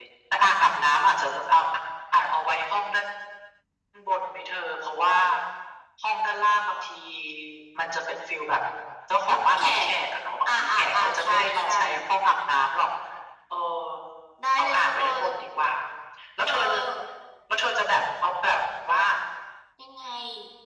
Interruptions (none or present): present